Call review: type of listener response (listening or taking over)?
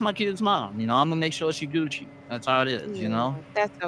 taking over